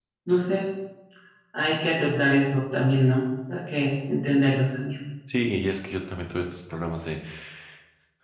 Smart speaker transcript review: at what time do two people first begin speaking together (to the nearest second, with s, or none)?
none